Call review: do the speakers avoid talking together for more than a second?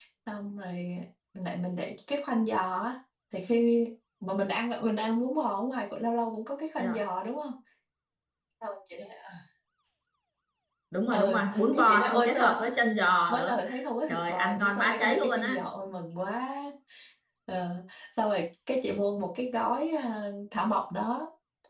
No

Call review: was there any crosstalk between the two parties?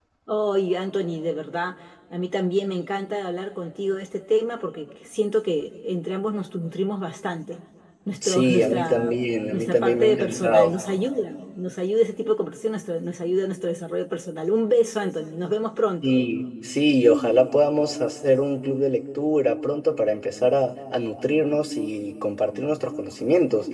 Yes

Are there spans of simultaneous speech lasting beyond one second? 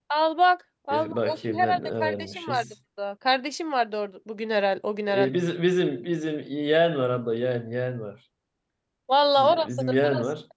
Yes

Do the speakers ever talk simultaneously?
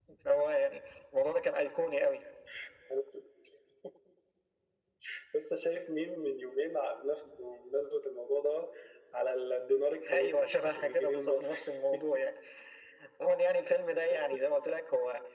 Yes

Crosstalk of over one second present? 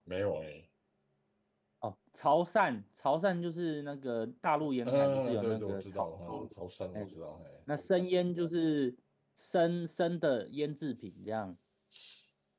Yes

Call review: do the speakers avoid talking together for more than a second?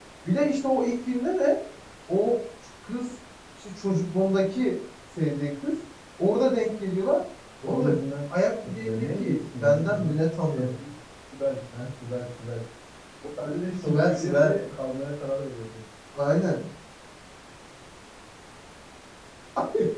No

